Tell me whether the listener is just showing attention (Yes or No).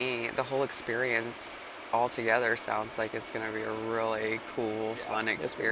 No